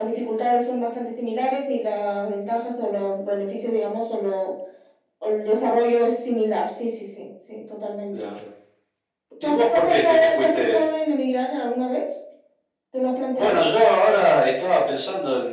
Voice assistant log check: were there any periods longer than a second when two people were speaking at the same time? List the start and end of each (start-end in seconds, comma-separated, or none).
9.4-10.8